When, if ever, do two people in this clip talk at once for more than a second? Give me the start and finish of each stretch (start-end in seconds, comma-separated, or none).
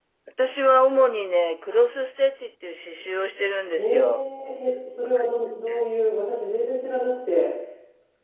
none